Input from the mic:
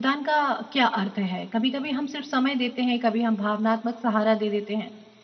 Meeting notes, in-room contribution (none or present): present